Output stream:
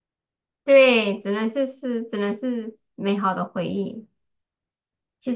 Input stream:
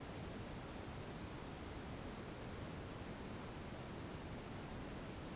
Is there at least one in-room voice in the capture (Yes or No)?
No